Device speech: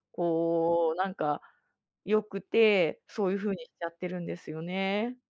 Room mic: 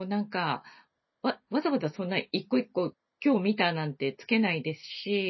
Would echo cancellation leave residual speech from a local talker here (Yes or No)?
Yes